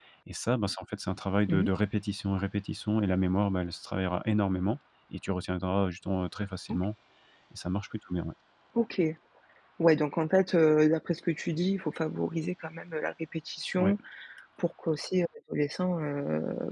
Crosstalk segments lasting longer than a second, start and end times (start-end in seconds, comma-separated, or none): none